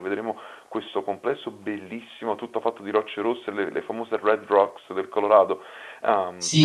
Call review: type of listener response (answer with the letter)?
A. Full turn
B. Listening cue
A